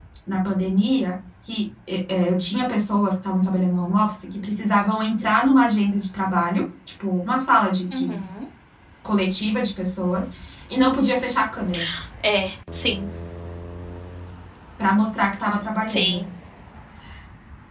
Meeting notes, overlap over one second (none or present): none